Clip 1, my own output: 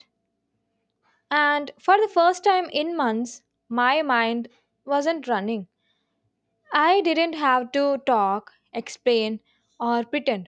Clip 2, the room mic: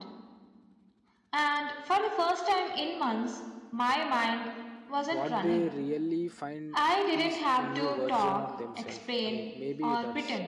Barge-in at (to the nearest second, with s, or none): 5 s